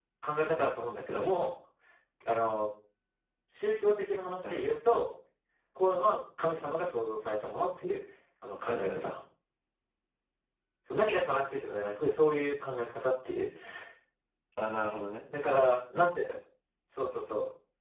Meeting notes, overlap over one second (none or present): none